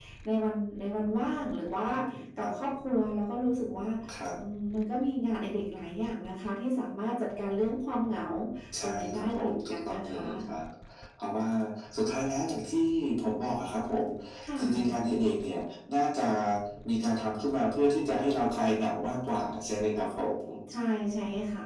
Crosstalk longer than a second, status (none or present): present